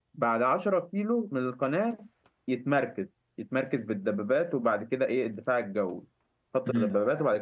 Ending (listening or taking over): listening